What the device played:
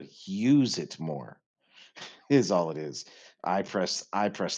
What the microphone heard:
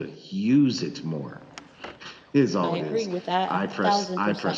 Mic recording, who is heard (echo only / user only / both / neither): both